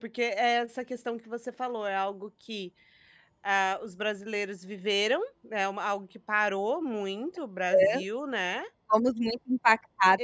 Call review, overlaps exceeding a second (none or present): none